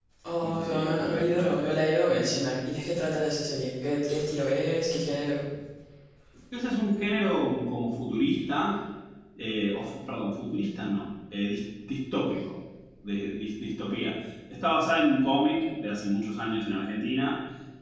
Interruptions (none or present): present